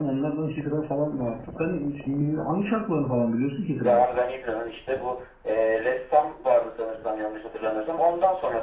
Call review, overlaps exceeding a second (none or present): none